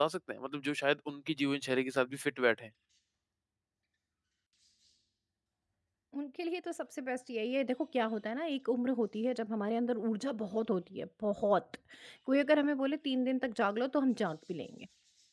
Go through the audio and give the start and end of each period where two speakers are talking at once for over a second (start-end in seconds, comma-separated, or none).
none